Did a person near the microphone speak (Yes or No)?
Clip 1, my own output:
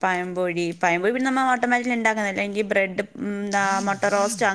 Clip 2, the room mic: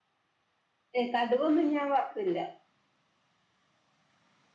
Yes